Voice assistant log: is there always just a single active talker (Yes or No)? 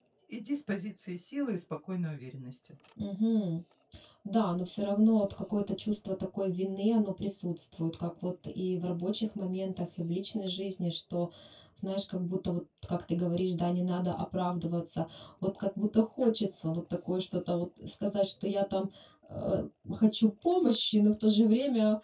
Yes